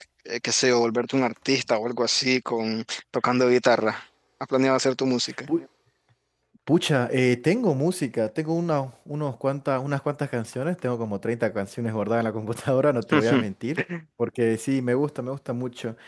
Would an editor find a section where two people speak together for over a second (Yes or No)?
No